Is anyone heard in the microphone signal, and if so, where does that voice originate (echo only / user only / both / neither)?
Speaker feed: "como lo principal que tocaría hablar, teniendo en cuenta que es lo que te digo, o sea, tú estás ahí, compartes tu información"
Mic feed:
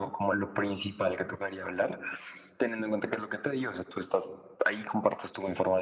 echo only